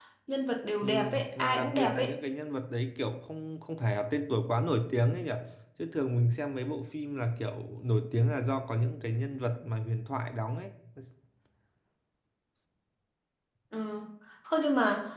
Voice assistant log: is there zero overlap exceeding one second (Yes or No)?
No